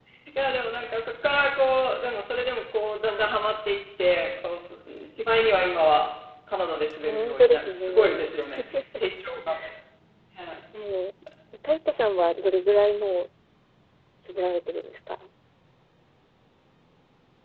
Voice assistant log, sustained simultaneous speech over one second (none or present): present